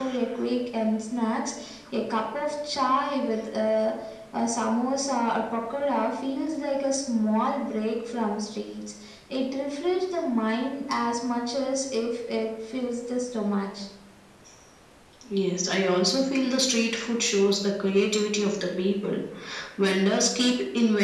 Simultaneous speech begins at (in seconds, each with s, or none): none